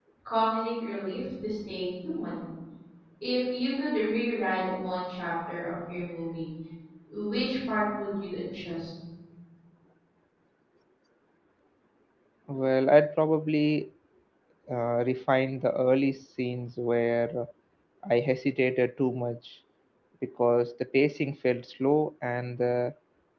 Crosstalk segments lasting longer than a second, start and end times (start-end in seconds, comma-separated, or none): none